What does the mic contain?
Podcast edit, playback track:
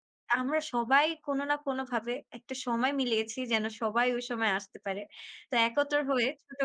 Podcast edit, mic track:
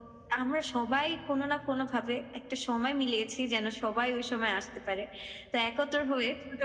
echo only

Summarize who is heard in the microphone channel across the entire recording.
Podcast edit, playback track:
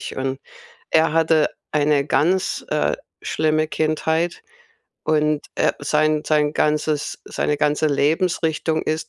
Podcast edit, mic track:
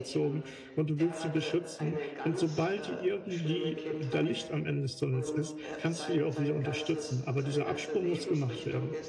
both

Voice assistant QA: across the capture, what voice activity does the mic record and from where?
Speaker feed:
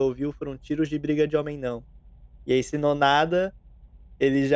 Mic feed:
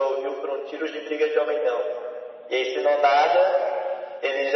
echo only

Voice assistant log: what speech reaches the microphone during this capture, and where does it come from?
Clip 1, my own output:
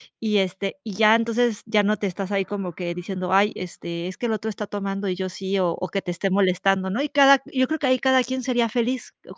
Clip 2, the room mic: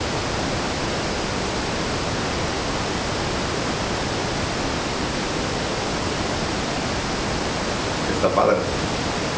user only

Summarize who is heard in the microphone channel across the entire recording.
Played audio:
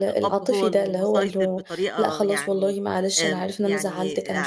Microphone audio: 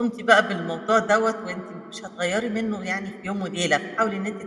user only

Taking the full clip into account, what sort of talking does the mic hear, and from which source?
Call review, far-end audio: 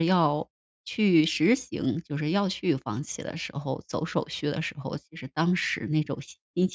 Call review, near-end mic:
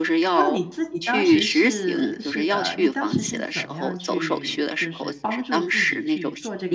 both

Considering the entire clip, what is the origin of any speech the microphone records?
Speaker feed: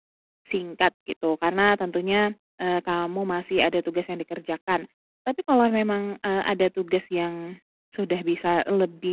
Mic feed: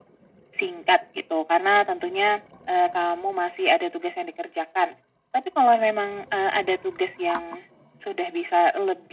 echo only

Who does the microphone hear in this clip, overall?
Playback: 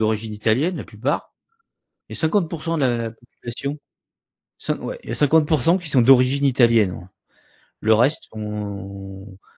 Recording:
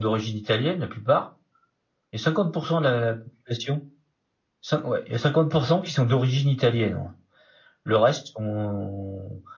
echo only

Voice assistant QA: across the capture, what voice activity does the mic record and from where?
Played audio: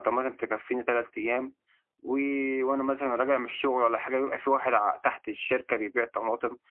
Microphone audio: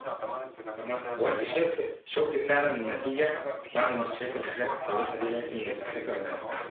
both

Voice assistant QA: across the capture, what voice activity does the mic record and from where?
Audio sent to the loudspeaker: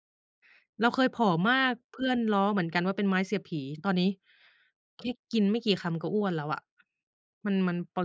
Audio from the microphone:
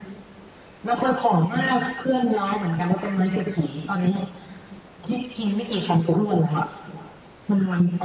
echo only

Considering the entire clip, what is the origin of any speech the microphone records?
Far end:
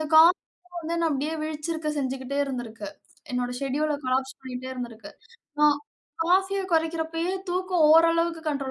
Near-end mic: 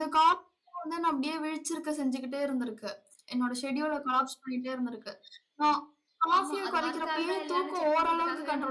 both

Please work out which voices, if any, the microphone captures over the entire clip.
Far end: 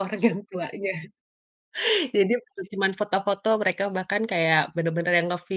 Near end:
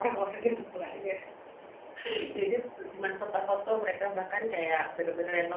echo only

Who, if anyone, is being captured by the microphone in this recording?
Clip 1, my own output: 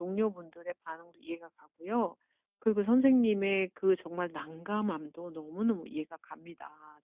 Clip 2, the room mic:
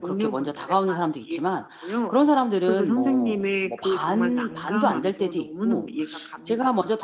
both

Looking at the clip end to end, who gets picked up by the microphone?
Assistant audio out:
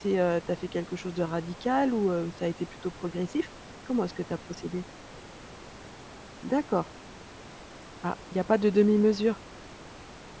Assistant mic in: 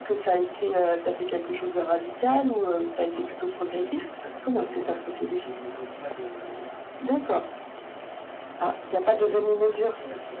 both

